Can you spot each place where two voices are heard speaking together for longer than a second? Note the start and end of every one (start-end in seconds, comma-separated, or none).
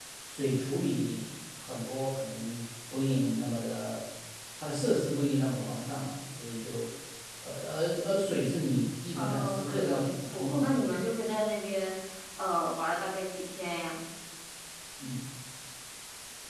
9.2-10.7